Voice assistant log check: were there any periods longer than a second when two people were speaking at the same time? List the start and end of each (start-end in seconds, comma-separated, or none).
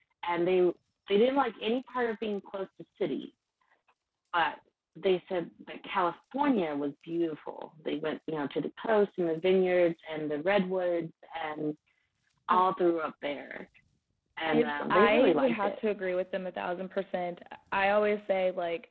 14.5-15.8